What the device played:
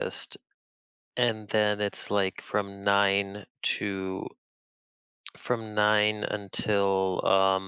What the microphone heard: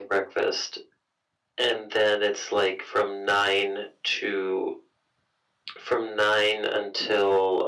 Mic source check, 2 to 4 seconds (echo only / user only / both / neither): echo only